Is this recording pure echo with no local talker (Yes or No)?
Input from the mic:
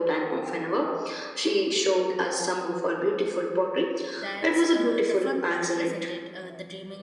No